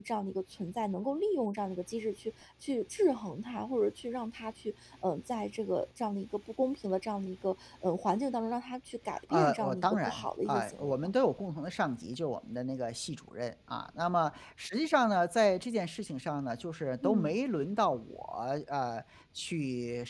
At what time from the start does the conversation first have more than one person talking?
9.3 s

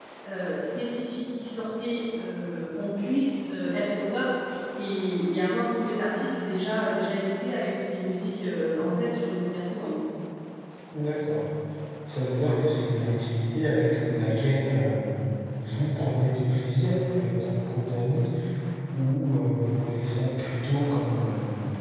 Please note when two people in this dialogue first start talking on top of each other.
none

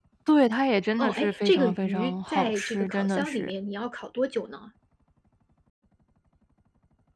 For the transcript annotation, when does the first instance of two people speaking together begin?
1.0 s

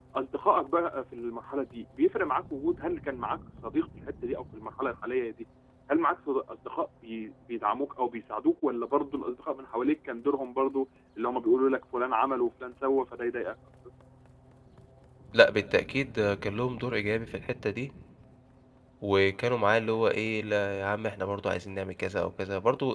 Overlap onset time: none

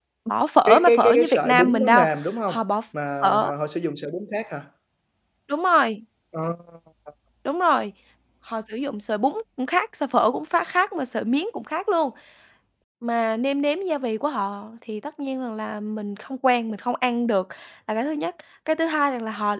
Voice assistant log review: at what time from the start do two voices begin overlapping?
0.7 s

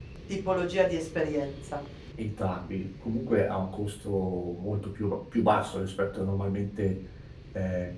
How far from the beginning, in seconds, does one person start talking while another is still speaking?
none

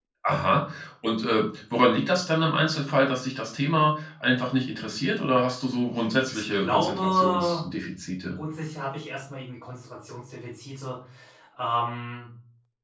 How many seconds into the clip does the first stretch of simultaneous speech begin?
6.3 s

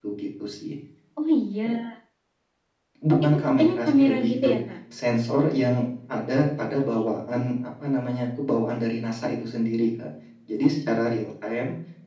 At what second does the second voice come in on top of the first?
3.2 s

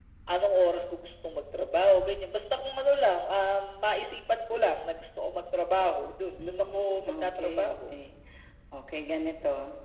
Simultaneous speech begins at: 6.4 s

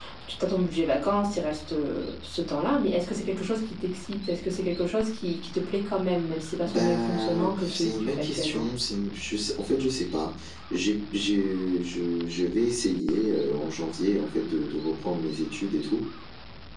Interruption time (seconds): 6.7 s

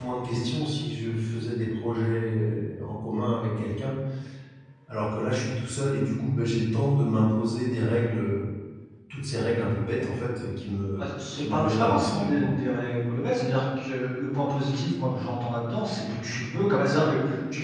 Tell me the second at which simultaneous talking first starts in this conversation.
11.0 s

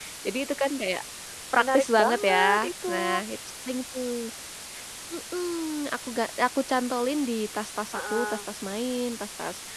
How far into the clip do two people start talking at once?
1.5 s

